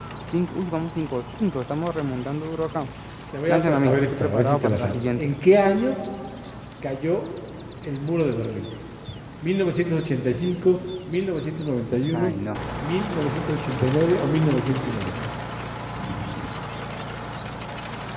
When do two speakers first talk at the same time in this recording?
3.5 s

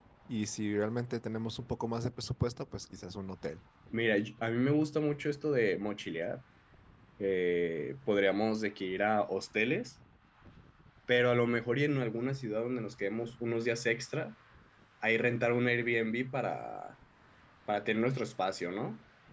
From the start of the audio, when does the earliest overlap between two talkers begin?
none

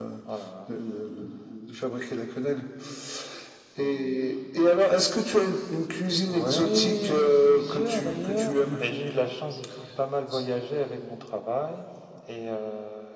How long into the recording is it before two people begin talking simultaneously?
6.3 s

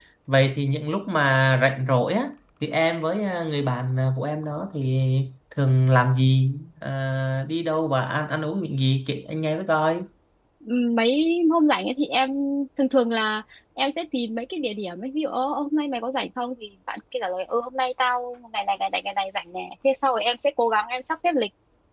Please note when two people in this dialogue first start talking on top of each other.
none

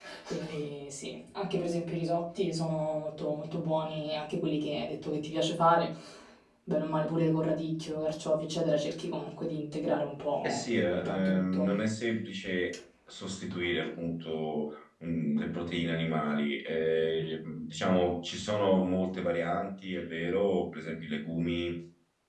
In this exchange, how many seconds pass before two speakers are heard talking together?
10.4 s

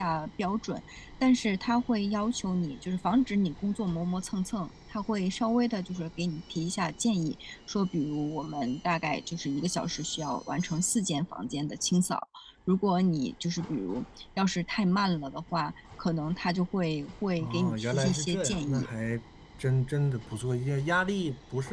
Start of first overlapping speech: 17.4 s

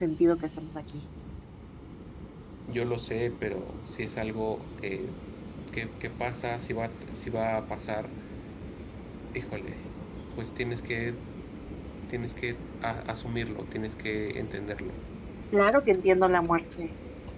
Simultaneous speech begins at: none

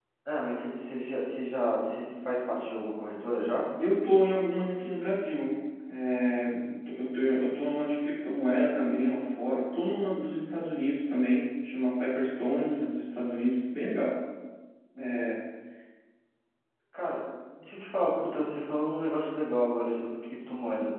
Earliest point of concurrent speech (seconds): none

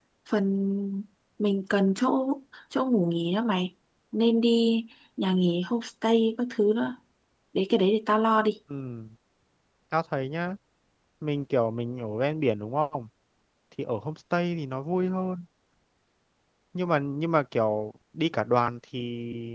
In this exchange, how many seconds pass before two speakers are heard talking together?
none

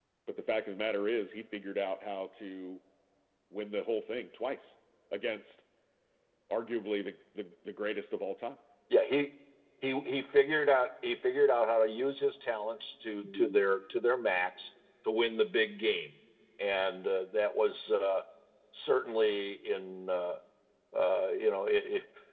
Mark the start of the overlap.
none

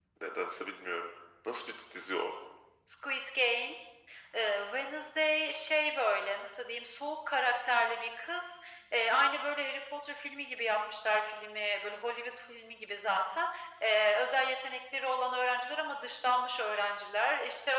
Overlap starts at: none

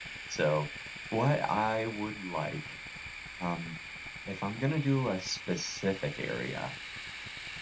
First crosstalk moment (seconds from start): none

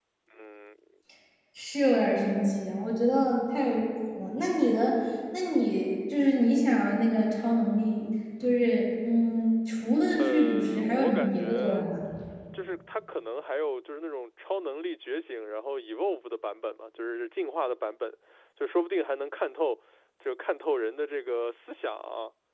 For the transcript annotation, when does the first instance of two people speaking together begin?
10.2 s

